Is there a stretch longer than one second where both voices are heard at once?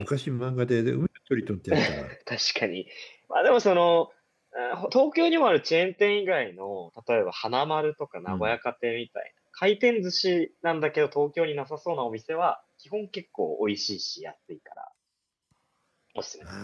No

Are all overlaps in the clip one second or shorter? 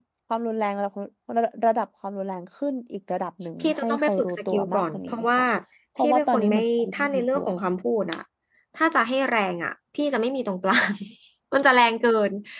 No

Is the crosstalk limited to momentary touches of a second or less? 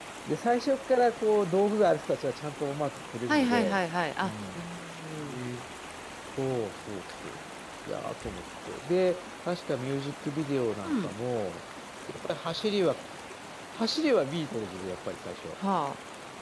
Yes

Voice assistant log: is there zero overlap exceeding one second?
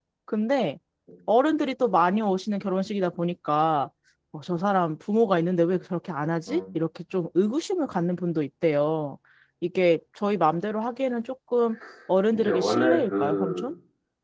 No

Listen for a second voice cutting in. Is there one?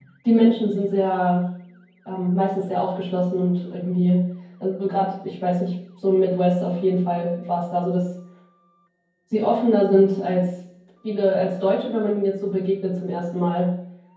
No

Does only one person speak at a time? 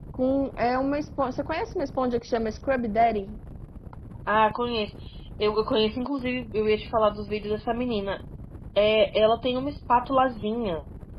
Yes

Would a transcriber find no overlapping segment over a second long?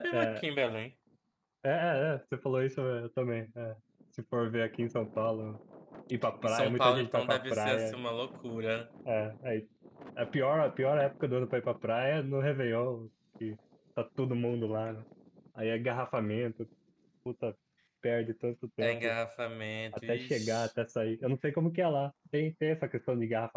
No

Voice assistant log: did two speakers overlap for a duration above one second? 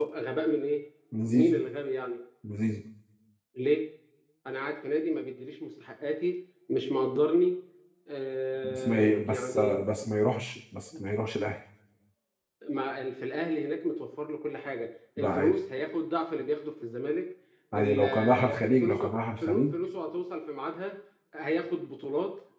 Yes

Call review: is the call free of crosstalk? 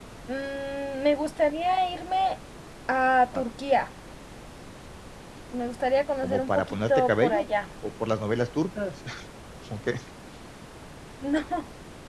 No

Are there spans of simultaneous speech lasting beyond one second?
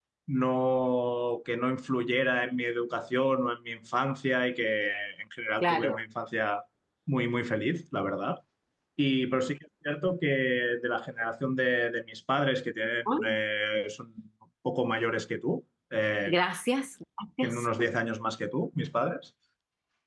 No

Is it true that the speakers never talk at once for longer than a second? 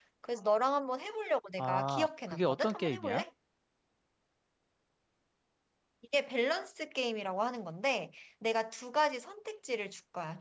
No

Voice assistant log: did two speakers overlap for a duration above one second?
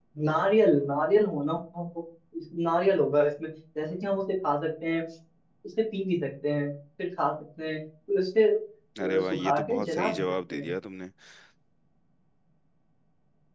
Yes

